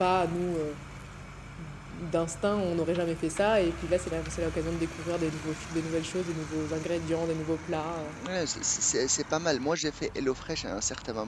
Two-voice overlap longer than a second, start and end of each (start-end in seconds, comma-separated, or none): none